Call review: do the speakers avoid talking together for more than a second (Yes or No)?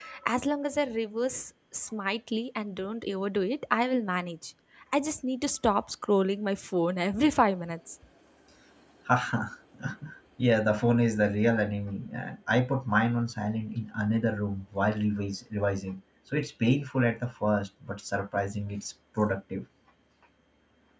Yes